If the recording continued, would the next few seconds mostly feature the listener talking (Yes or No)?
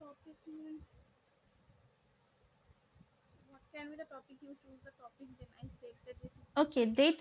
Yes